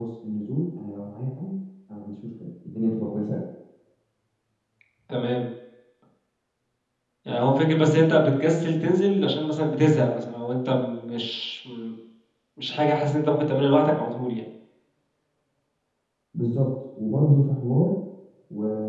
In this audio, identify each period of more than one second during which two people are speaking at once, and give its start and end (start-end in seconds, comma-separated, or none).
none